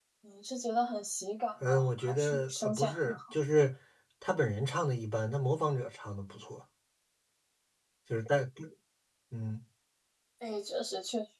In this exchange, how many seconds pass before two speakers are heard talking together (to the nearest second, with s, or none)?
2 s